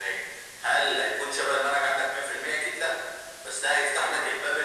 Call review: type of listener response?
listening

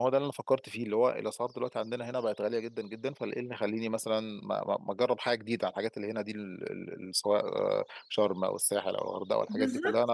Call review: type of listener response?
taking over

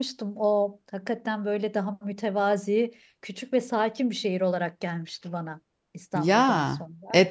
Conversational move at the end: taking over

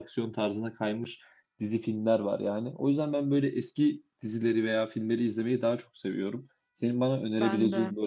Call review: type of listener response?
listening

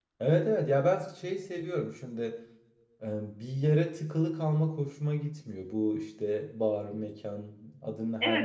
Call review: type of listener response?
taking over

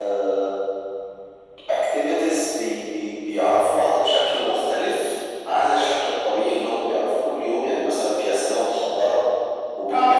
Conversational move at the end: listening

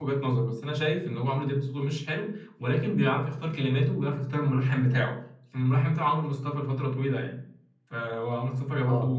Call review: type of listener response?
listening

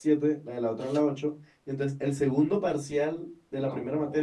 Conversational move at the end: listening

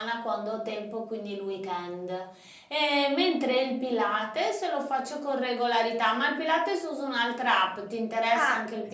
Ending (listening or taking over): taking over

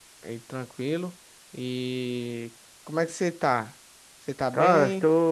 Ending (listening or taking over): taking over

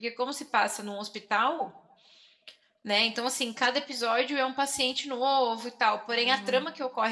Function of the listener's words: listening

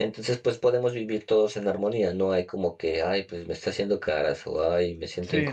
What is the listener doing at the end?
taking over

